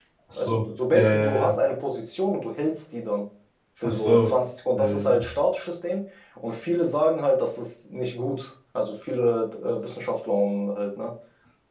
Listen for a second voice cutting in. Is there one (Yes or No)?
Yes